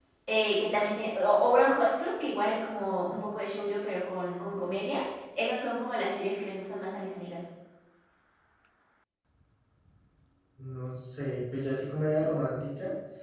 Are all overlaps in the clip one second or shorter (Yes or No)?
Yes